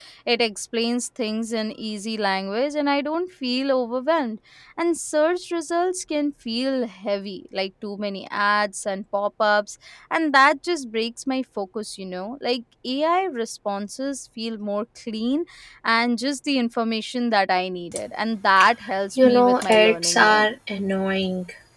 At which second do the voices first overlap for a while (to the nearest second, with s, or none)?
19 s